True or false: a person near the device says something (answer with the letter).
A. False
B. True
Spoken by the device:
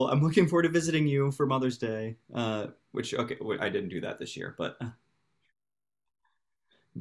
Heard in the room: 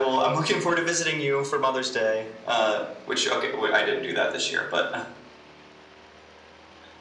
A